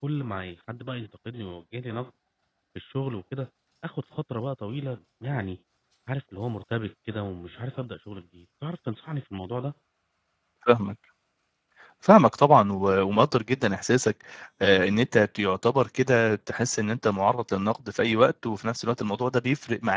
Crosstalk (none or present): none